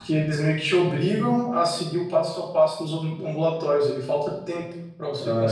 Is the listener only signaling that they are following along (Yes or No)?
No